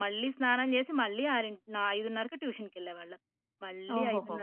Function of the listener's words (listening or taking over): listening